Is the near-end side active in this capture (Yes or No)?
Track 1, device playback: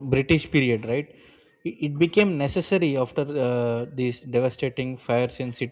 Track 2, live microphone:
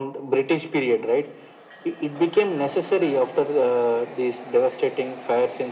No